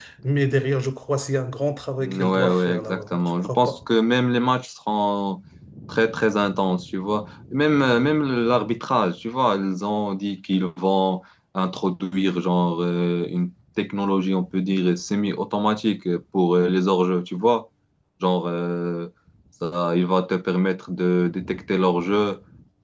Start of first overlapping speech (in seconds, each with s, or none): 2.0 s